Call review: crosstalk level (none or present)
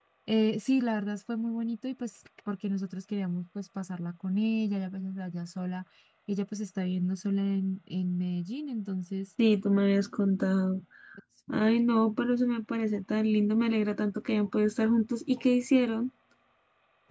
none